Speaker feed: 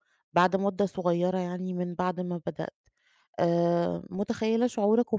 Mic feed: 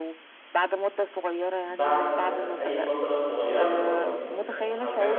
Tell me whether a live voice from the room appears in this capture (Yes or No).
Yes